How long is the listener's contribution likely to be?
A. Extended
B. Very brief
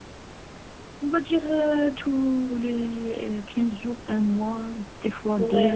A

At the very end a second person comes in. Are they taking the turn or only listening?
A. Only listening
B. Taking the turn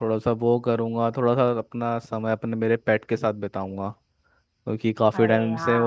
A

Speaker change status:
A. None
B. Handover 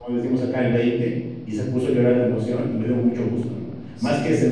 A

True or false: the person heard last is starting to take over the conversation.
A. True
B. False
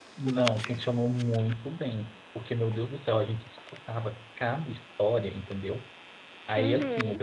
B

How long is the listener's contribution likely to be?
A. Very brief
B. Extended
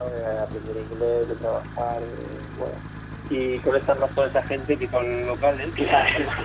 A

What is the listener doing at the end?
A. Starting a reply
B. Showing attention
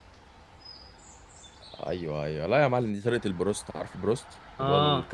B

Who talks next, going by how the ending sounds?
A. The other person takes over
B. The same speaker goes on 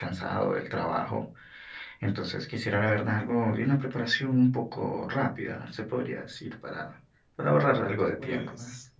A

